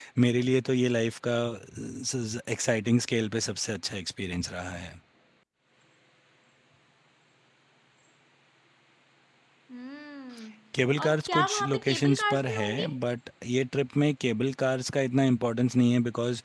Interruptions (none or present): present